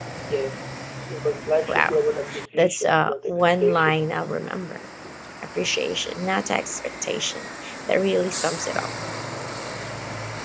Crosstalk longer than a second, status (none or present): present